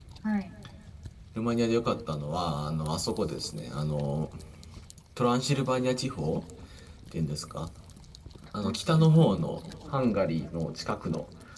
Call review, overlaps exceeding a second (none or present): present